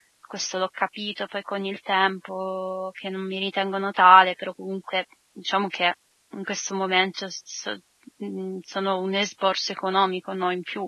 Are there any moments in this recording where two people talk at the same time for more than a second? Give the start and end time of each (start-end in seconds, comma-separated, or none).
none